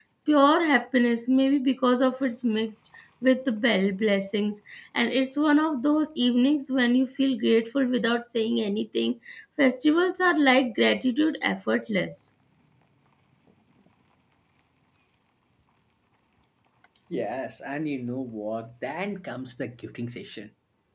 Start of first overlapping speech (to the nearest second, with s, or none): none